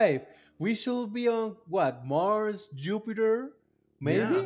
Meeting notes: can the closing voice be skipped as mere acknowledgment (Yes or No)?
No